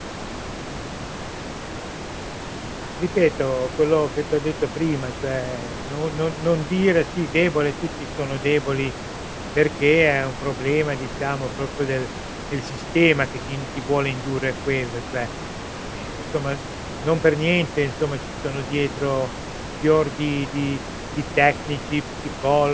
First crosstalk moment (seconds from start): none

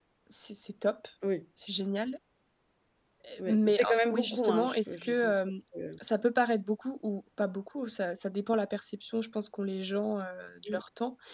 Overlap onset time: 3.5 s

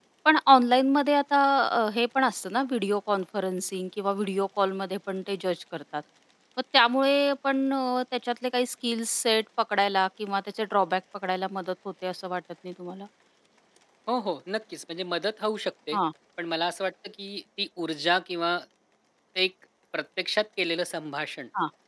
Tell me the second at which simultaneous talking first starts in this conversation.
none

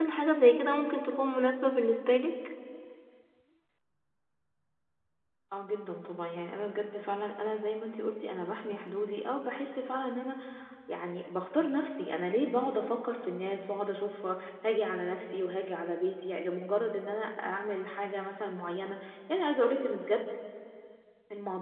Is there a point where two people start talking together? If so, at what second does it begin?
none

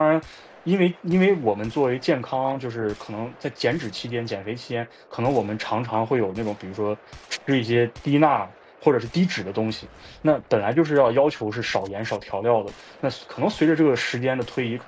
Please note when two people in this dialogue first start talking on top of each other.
none

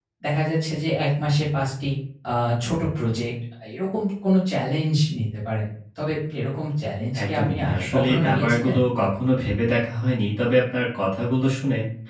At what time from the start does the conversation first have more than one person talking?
7.1 s

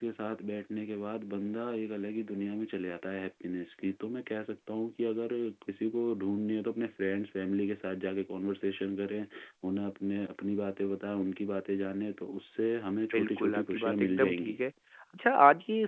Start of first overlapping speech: 13.1 s

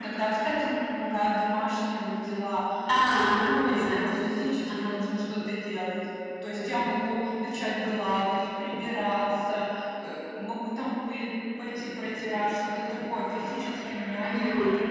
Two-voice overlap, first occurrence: 3.3 s

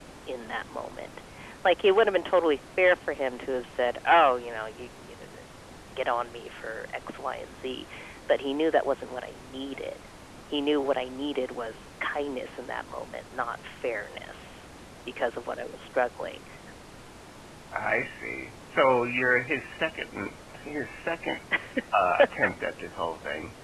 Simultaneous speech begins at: none

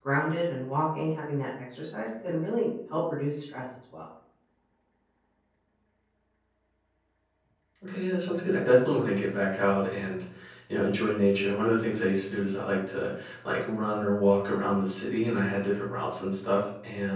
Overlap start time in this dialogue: none

